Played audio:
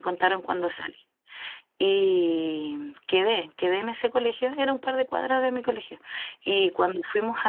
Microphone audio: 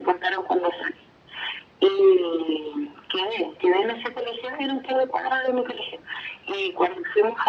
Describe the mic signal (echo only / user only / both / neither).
echo only